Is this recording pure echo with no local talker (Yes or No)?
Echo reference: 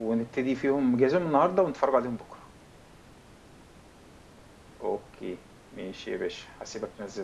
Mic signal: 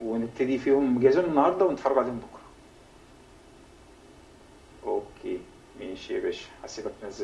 Yes